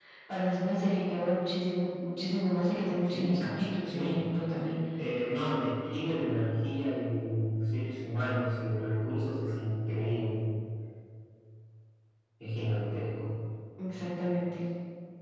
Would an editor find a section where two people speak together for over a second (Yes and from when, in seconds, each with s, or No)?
Yes, from 3.0 s